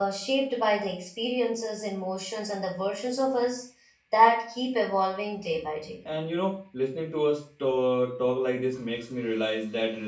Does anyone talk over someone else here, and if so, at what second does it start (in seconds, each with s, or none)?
none